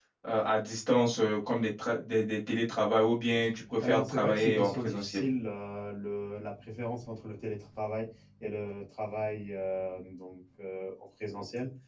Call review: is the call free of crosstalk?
No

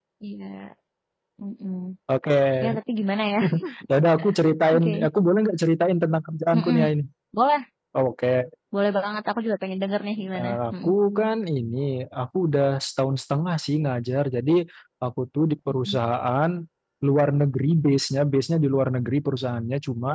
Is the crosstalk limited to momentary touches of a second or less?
Yes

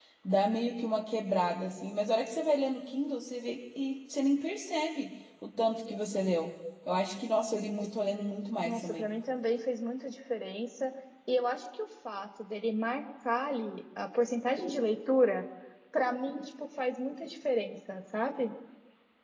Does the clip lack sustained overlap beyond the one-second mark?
Yes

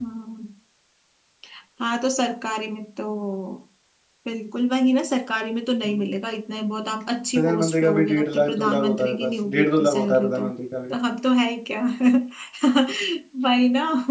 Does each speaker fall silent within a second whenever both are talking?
No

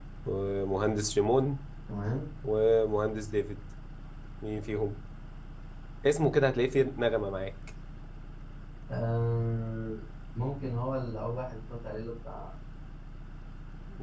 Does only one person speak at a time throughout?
Yes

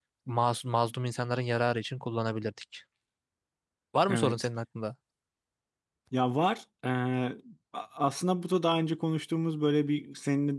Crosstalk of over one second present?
No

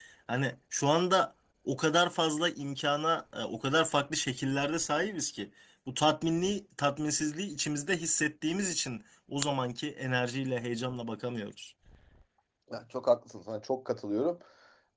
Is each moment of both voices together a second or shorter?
Yes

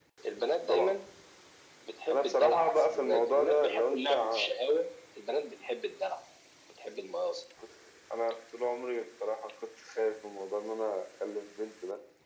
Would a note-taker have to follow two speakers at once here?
Yes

